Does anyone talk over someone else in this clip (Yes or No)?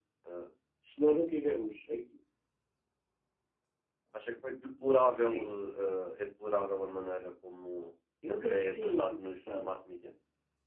Yes